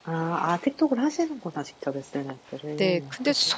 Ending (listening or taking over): taking over